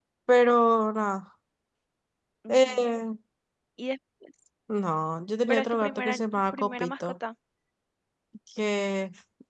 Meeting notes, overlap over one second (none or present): present